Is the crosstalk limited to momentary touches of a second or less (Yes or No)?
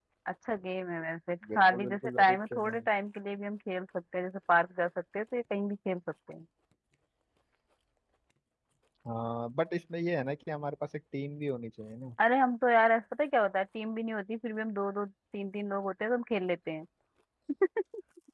No